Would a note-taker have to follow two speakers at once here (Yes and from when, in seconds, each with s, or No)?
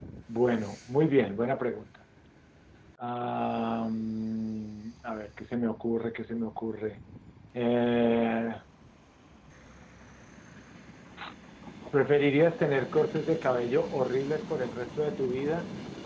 No